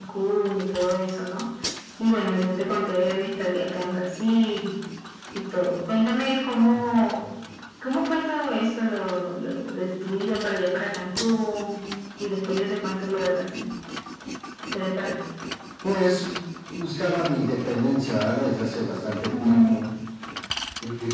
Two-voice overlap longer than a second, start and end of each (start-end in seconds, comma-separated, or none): none